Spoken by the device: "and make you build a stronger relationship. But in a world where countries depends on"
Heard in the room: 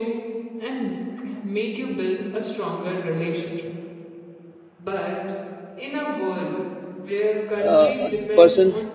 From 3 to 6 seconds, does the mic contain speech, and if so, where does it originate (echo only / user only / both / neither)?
echo only